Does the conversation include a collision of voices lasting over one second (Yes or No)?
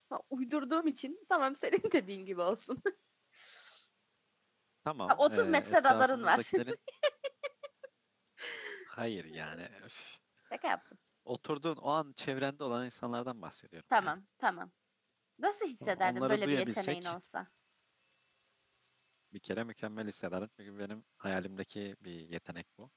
Yes